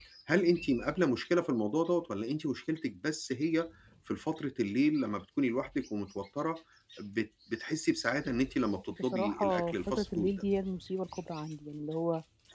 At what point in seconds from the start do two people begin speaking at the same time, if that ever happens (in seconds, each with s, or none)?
8.9 s